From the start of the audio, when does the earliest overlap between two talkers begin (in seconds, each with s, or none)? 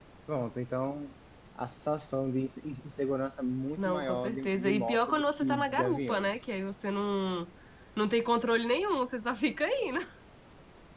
3.8 s